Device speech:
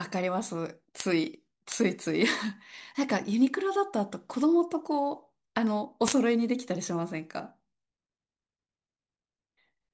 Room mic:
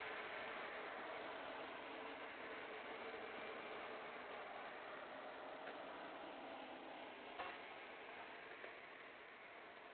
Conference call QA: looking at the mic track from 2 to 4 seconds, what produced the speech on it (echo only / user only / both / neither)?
neither